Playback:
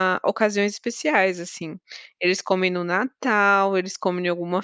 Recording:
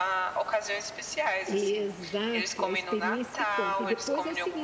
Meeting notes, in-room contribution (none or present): present